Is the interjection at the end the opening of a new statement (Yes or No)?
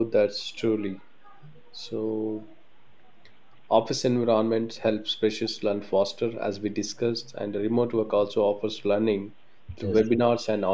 No